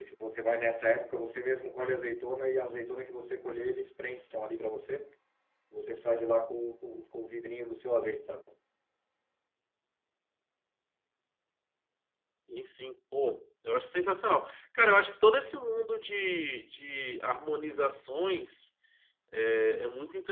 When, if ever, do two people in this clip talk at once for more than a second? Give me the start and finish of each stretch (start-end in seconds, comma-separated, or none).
none